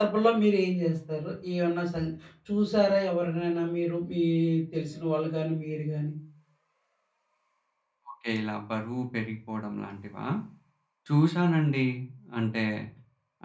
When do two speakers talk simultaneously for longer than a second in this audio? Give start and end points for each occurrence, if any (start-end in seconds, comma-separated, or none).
none